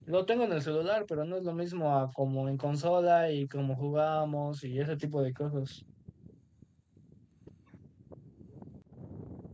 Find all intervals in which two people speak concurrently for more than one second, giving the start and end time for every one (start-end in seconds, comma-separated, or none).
none